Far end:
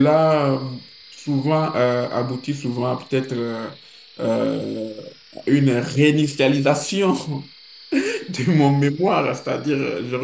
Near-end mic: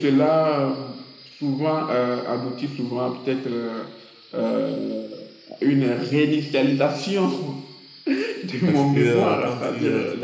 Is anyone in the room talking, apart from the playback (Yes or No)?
Yes